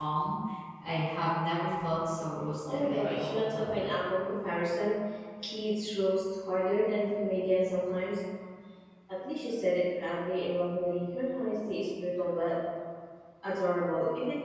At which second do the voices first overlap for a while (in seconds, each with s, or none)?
2.6 s